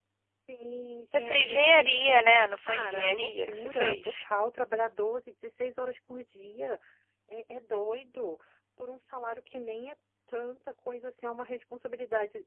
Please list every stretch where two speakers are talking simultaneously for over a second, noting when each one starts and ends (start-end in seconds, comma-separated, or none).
1.1-4.2